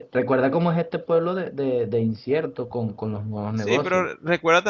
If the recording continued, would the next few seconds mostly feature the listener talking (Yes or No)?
Yes